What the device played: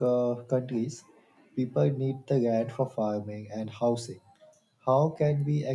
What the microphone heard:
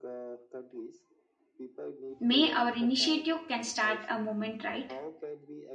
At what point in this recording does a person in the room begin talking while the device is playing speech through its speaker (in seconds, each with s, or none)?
2.2 s